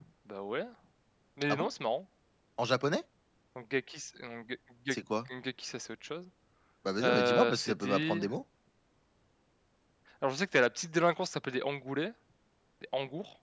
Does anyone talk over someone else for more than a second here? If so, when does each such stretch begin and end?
7.0-8.2

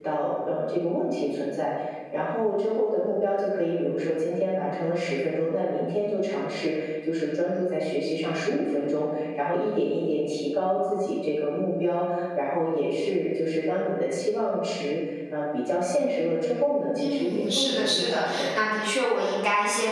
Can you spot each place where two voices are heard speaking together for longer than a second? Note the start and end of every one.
17.0-18.5

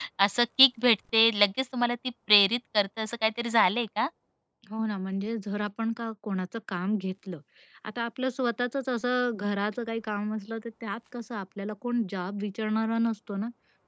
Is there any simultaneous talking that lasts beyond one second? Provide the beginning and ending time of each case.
none

